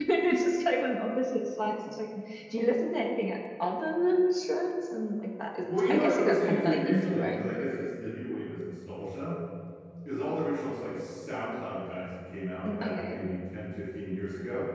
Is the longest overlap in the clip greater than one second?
Yes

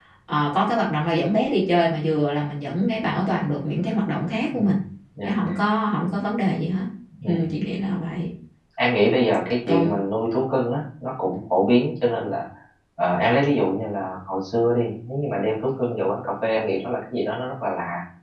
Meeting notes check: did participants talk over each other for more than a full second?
No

